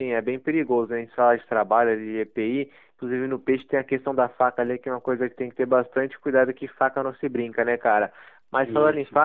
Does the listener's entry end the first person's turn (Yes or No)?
No